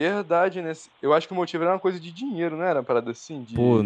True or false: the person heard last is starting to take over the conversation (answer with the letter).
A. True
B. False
A